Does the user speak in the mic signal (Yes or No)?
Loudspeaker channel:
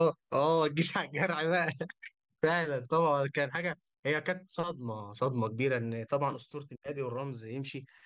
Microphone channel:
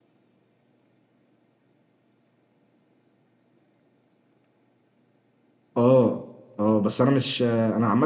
Yes